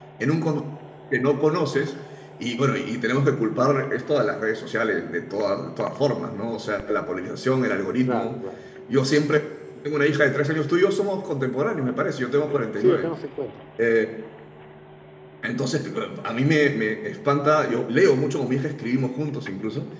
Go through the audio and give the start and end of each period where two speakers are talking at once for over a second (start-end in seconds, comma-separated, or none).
none